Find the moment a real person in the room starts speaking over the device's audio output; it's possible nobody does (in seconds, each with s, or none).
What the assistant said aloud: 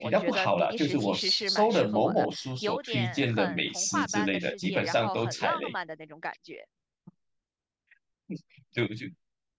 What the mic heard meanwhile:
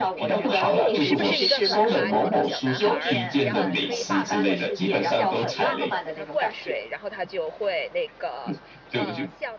0.6 s